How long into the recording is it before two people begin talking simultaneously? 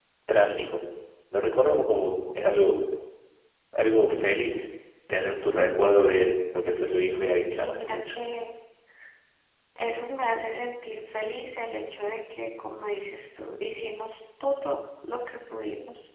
6.8 s

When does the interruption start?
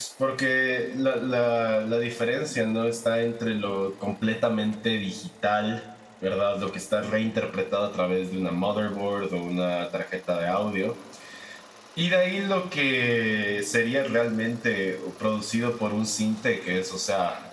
none

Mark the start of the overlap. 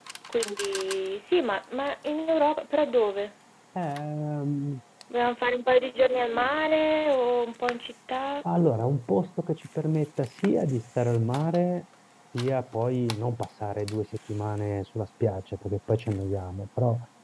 none

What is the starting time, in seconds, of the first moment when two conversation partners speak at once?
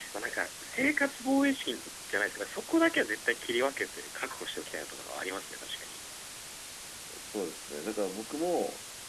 none

